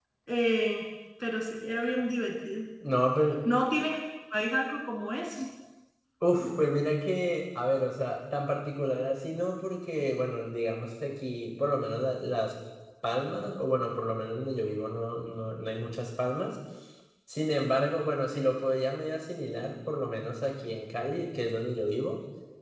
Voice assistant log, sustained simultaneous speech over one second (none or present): none